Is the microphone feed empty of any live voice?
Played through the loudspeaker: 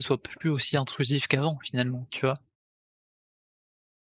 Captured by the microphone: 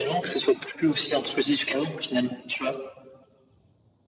Yes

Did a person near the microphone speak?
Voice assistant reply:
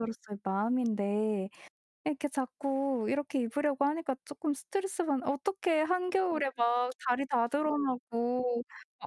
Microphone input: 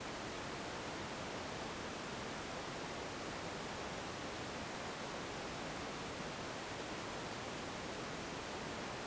No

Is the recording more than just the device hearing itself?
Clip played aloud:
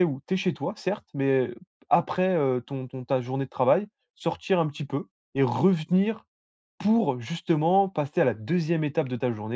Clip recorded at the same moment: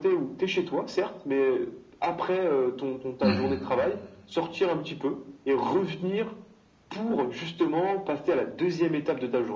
Yes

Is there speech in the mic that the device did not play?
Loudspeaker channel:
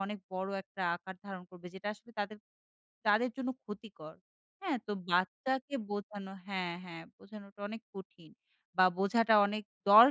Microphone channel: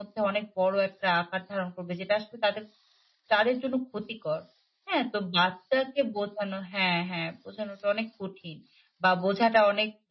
No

